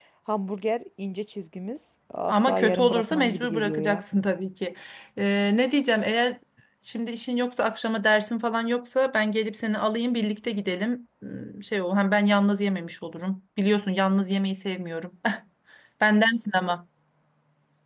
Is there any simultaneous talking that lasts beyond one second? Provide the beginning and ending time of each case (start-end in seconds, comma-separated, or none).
2.3-4.0